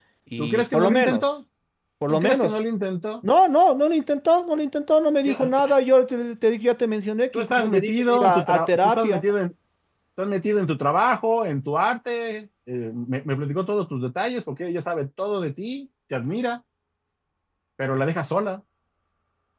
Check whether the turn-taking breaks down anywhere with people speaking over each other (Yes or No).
Yes